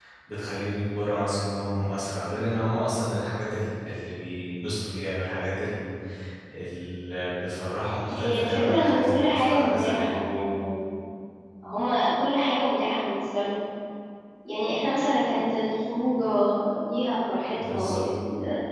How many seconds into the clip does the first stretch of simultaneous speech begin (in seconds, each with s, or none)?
8.1 s